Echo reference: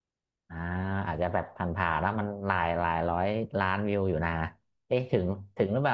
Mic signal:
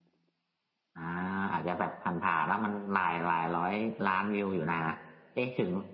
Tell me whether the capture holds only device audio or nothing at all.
Yes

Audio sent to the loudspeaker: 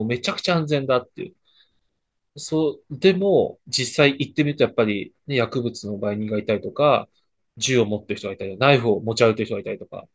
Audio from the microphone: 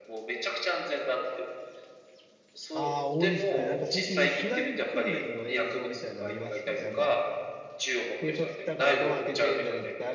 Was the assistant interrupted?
Yes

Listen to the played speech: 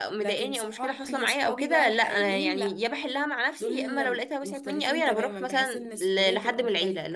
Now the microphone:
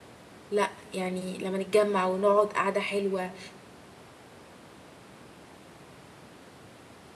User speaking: Yes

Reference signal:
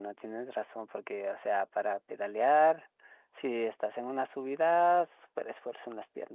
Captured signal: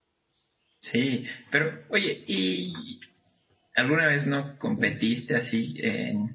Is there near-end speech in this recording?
Yes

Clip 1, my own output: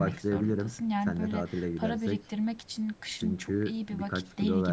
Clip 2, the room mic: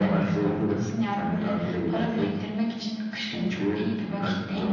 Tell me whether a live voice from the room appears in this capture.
No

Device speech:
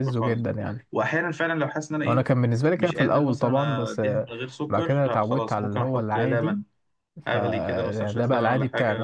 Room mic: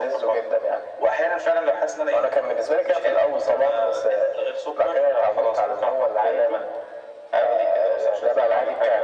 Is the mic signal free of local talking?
Yes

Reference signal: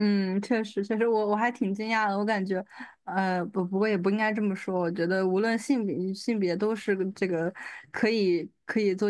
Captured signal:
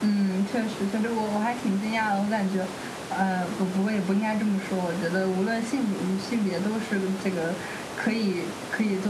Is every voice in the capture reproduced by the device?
Yes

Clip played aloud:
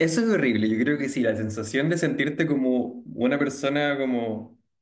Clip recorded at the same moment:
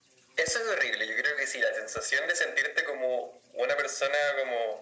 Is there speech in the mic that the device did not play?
No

